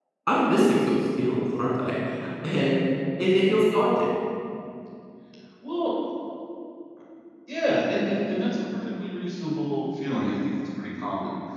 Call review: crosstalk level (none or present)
none